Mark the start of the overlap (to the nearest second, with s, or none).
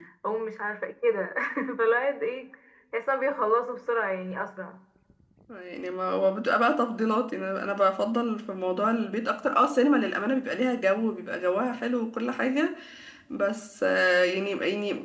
none